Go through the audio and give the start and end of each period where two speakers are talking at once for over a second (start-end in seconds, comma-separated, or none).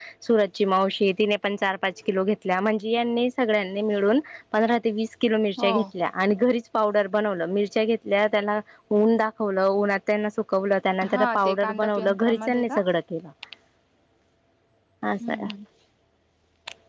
11.1-12.8